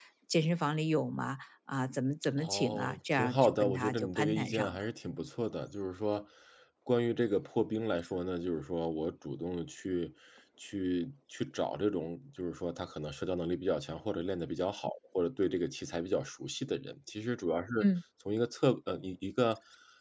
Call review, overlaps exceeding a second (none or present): present